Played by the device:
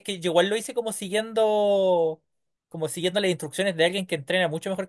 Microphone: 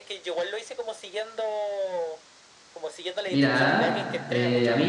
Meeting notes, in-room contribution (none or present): present